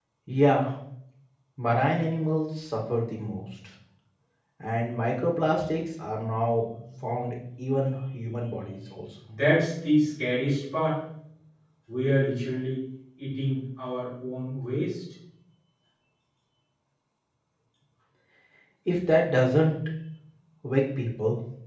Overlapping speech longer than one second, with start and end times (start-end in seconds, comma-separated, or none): none